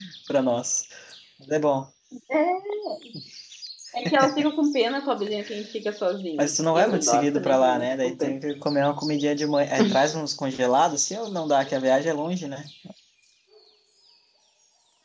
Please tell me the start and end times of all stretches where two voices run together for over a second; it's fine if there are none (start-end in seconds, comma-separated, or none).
6.4-8.3